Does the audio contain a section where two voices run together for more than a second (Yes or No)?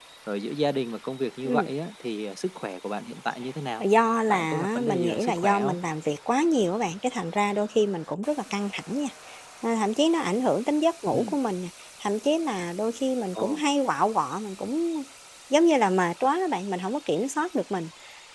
Yes